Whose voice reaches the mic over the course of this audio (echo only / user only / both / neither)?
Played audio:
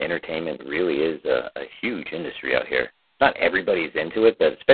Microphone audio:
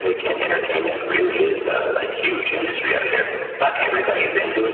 echo only